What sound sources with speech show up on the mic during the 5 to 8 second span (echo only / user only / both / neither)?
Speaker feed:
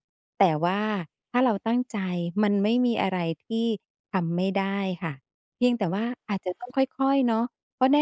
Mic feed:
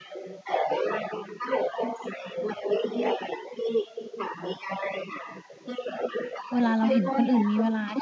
both